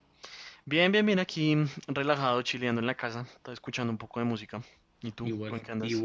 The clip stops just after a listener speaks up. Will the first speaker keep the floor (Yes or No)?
No